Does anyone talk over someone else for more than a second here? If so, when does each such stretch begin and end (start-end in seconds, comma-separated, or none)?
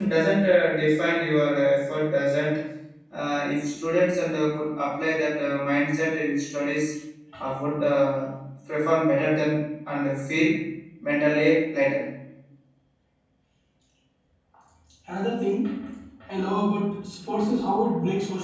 none